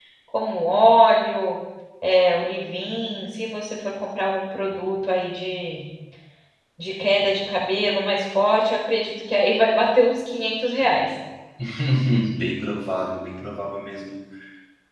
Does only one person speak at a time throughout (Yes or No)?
Yes